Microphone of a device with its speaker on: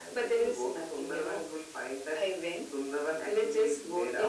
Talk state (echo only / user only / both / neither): echo only